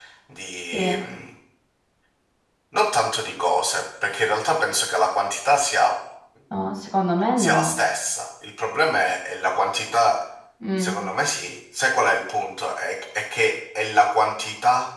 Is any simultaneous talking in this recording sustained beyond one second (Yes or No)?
No